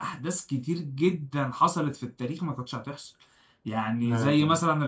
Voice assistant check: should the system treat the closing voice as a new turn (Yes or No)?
No